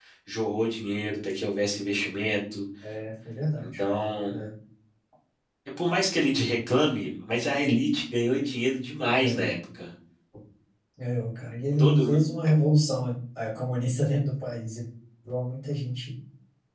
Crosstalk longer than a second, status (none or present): none